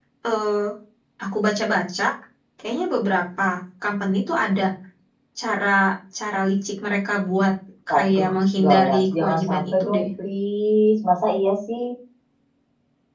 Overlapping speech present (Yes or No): Yes